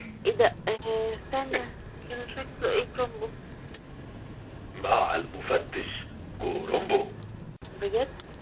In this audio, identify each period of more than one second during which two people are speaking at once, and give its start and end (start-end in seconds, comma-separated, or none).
none